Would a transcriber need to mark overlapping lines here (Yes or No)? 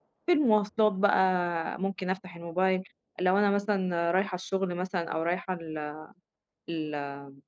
No